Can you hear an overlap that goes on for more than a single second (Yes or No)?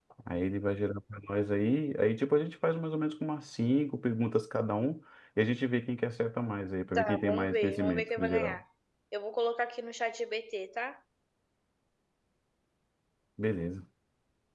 Yes